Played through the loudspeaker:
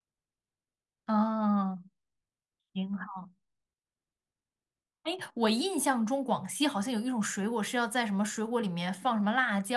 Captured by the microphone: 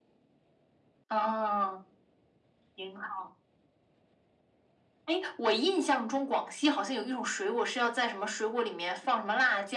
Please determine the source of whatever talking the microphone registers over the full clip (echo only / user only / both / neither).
echo only